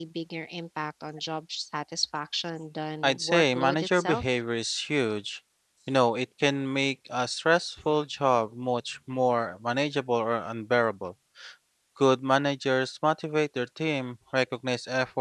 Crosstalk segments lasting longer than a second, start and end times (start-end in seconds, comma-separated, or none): 3.0-4.2